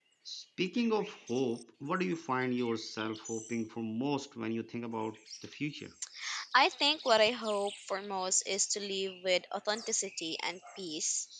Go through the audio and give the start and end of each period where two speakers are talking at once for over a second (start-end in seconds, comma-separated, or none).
none